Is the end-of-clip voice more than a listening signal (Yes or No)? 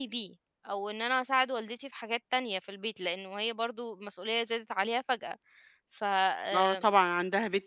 Yes